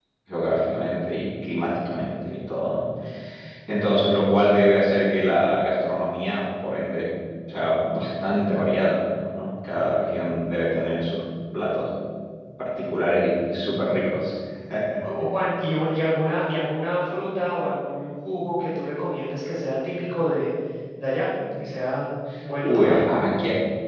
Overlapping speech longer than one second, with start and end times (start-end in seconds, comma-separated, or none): none